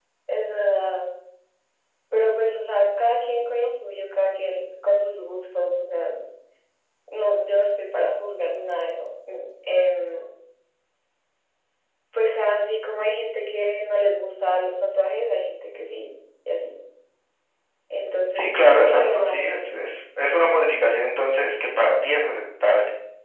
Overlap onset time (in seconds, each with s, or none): 18.3 s